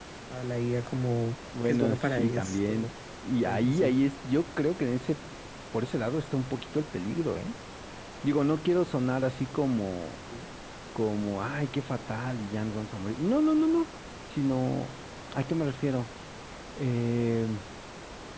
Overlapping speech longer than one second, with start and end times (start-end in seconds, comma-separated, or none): 1.6-2.9